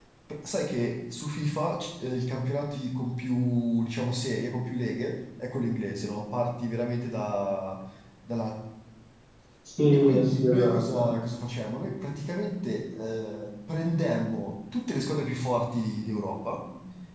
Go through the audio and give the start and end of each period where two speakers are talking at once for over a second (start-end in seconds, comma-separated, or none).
9.9-11.1